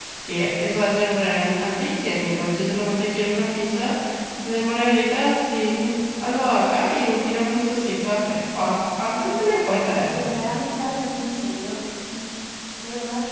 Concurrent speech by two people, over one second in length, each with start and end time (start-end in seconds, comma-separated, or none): none